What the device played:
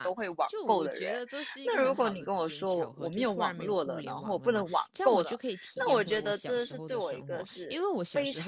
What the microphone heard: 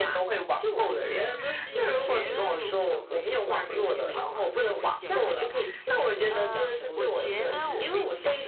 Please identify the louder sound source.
echo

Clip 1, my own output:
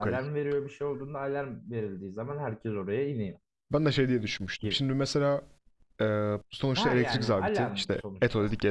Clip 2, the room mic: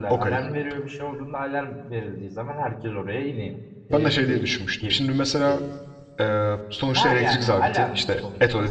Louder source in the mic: echo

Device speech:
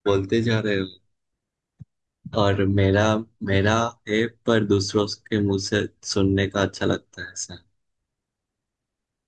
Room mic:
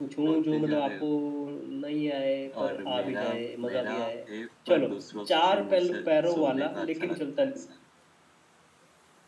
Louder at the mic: user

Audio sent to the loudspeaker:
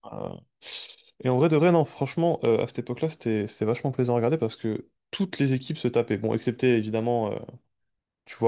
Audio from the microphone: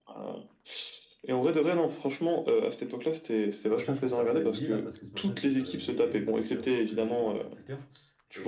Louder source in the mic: echo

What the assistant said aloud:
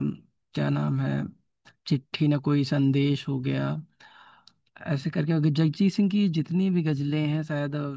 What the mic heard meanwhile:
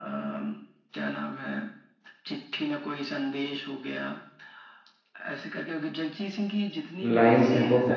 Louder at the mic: user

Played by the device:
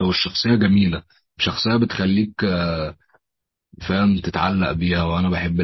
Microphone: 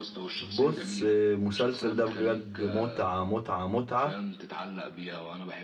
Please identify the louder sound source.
user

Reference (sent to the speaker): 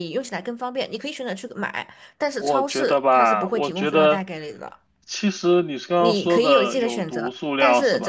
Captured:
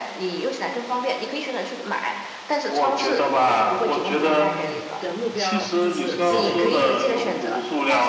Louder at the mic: echo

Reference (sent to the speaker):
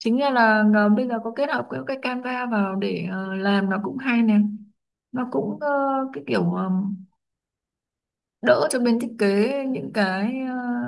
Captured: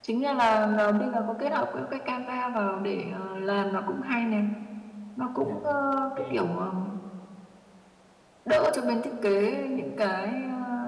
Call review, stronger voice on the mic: echo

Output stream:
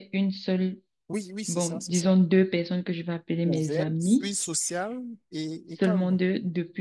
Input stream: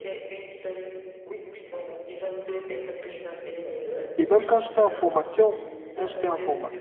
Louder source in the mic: user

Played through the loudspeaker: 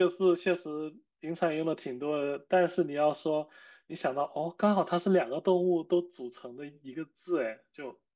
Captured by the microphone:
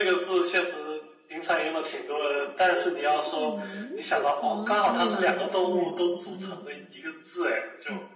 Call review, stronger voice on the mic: echo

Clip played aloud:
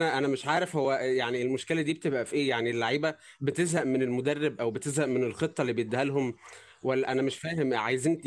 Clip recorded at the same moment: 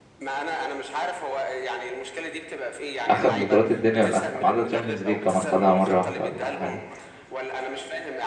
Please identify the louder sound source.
user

